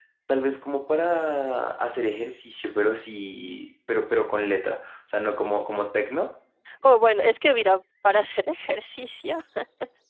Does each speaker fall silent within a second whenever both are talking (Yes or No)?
Yes